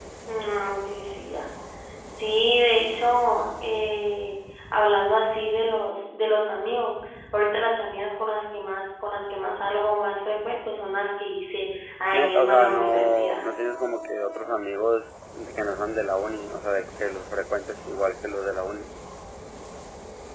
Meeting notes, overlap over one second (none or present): present